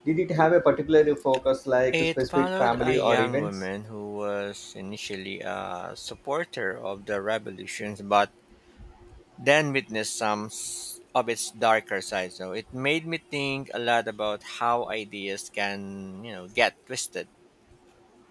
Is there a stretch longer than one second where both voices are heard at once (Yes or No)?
Yes